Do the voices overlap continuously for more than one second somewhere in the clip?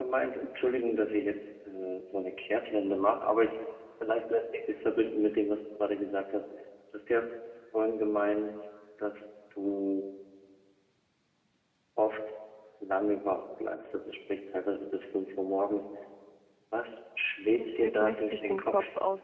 Yes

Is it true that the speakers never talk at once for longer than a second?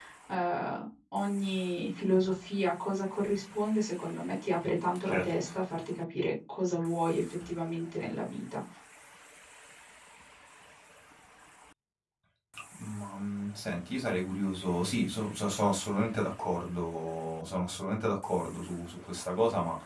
Yes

